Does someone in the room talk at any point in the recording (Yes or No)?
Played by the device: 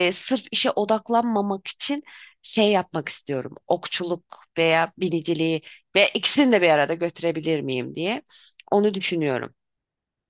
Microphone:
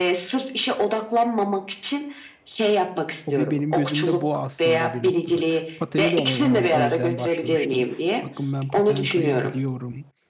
Yes